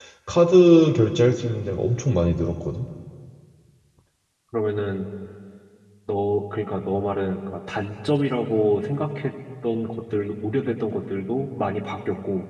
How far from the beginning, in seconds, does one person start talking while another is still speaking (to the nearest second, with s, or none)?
none